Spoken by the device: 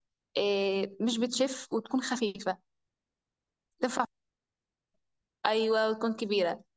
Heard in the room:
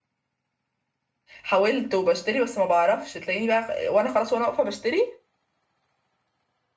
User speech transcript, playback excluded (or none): حاولت وبشتري بس ما بعرفش تلاقيني بقى وانا خلاص وانا واقفه بشتري